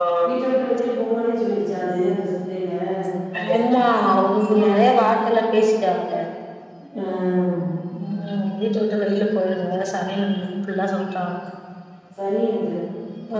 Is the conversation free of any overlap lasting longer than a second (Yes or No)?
Yes